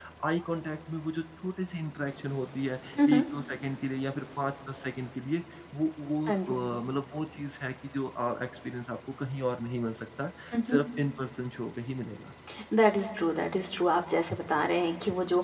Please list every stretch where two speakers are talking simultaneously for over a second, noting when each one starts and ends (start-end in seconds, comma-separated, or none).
none